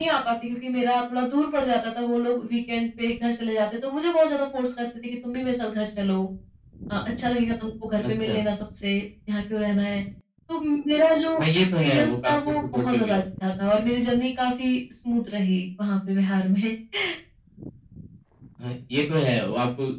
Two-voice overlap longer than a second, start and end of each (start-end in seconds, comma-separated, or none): 11.4-13.2